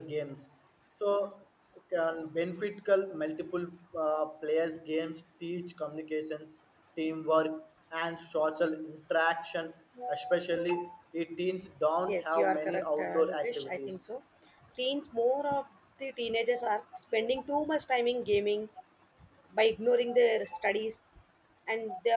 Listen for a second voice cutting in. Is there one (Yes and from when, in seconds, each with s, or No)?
Yes, from 12.1 s